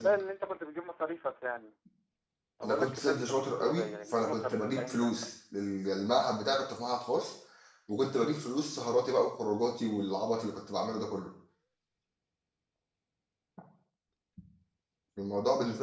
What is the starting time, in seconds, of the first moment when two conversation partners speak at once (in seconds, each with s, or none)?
2.6 s